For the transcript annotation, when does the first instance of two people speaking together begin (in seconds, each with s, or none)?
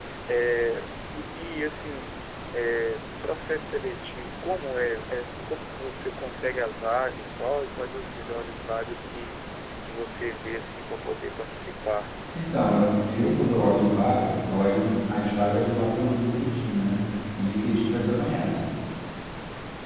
none